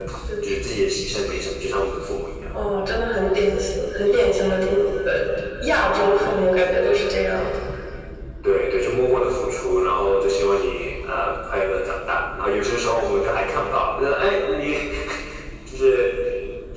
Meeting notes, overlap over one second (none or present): none